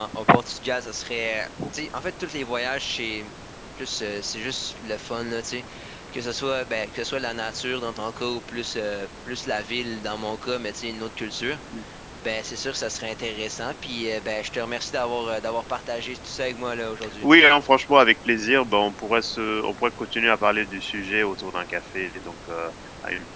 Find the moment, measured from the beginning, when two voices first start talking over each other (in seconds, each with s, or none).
none